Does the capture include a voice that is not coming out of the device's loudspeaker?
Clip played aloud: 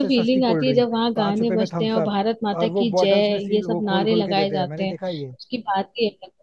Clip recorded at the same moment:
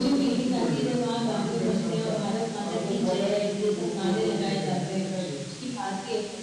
No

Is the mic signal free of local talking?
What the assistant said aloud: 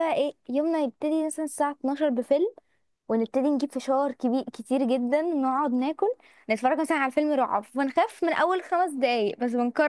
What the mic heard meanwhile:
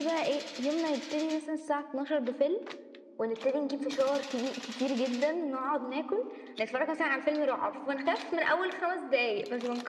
Yes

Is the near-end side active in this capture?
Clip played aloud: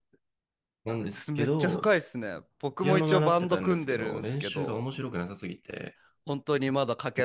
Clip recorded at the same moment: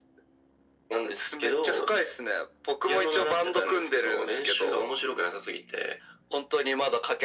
No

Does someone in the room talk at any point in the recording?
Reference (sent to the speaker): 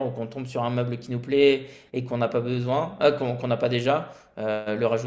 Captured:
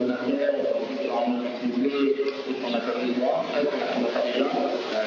No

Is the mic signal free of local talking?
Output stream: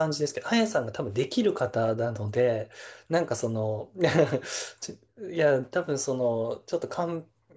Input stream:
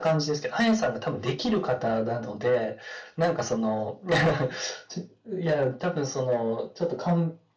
Yes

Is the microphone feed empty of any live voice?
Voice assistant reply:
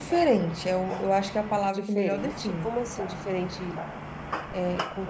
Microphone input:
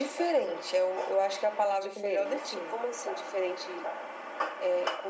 Yes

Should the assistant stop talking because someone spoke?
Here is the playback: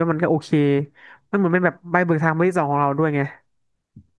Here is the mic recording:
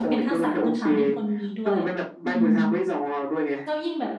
Yes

